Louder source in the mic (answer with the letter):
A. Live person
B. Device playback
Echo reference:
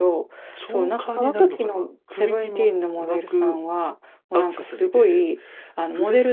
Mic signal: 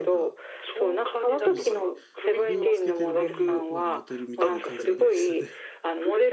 B